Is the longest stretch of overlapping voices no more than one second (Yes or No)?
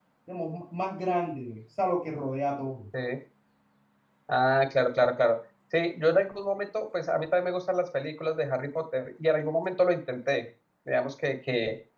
Yes